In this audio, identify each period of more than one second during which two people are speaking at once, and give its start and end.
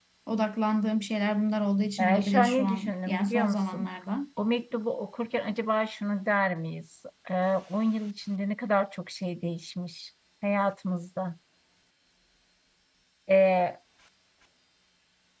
2.0-3.9

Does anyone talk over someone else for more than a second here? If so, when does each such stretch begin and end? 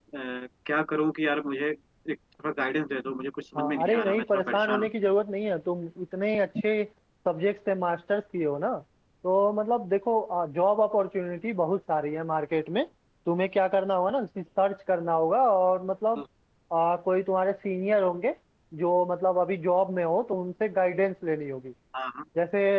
3.5-4.9

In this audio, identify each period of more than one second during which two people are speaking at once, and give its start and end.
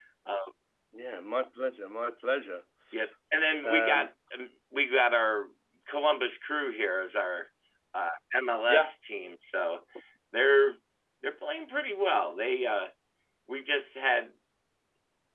none

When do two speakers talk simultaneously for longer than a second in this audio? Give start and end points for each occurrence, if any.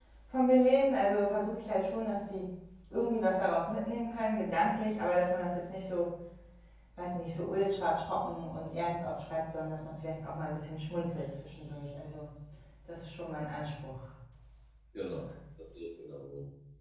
none

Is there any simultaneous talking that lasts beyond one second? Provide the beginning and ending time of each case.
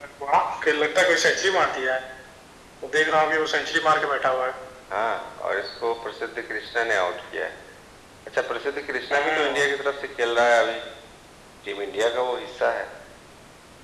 none

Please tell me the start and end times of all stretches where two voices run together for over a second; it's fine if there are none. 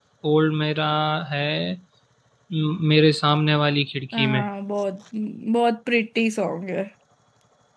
none

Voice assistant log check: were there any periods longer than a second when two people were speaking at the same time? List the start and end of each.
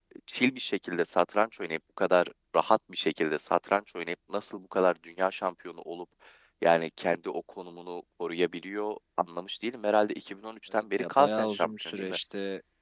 10.7-12.2

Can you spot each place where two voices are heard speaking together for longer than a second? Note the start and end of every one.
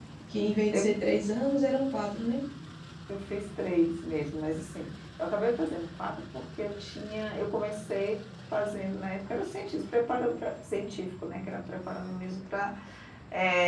none

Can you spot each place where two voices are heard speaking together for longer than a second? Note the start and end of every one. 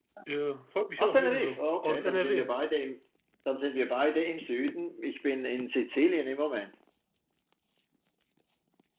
1.0-2.5

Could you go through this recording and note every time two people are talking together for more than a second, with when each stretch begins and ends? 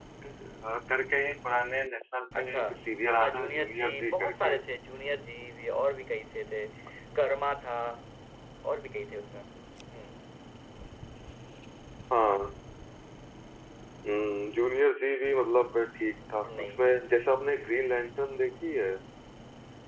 3.2-4.6

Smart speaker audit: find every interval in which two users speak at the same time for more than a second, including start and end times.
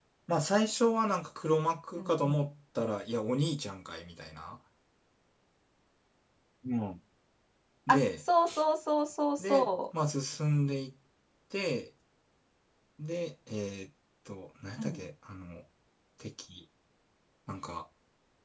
none

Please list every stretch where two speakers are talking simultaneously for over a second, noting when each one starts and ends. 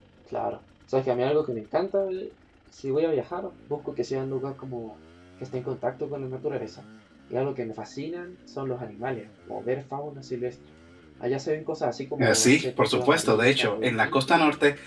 12.2-14.2

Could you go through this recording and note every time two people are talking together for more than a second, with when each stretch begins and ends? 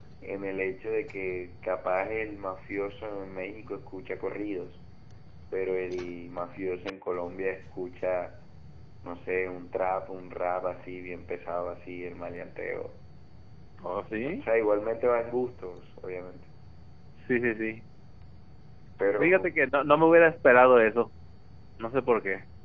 none

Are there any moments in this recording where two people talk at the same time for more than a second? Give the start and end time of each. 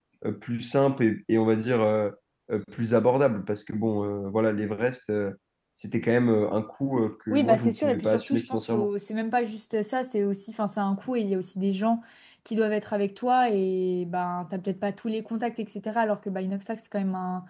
7.3-8.9

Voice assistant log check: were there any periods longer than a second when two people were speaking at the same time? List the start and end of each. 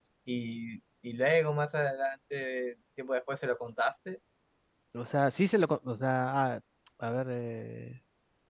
none

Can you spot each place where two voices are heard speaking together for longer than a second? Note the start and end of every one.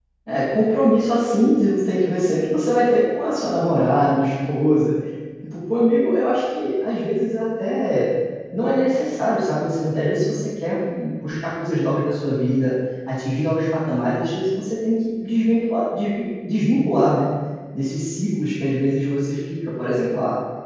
none

